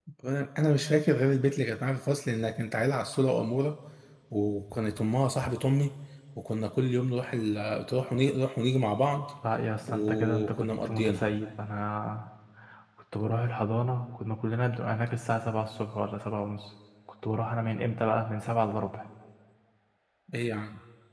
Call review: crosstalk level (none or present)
present